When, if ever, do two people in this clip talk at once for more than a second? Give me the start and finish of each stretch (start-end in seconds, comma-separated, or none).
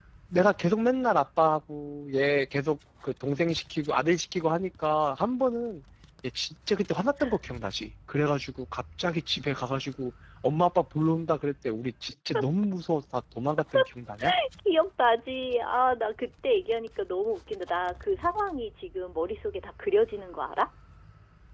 none